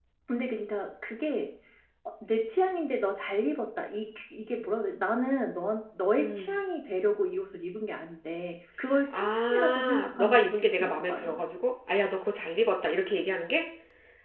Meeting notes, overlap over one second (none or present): present